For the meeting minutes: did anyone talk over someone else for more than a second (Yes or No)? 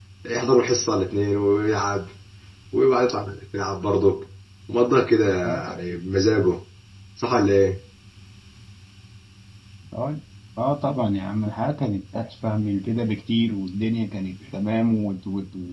No